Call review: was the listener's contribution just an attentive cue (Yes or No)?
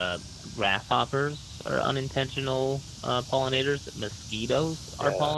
Yes